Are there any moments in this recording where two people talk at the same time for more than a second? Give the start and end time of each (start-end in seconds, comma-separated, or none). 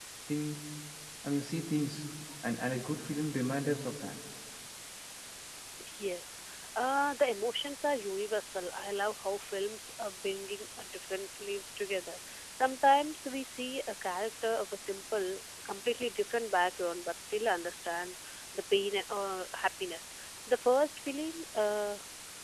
none